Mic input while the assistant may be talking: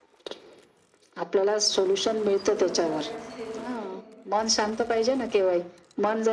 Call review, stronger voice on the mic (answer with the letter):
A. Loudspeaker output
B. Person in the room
A